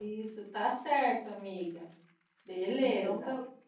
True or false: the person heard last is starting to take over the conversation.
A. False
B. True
B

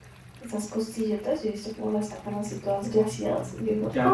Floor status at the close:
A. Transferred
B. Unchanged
A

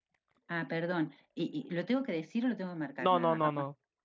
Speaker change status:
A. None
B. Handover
B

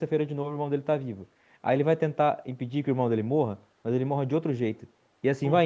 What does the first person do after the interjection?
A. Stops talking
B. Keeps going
B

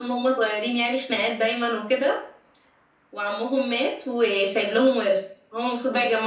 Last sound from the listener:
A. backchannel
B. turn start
A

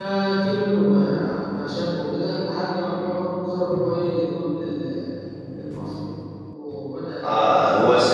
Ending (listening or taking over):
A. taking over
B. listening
A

